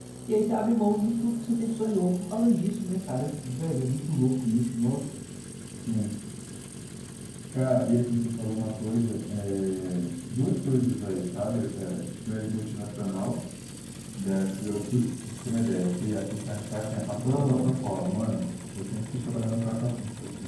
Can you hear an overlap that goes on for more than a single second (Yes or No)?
No